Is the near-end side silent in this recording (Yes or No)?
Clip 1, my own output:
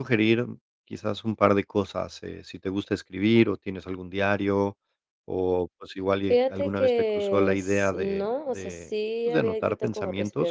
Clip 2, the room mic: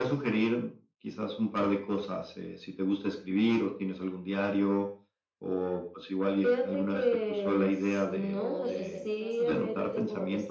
No